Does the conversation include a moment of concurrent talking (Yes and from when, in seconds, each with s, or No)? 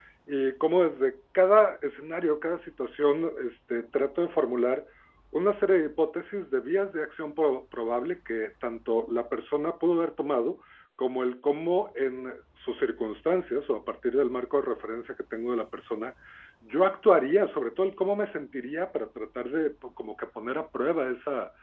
No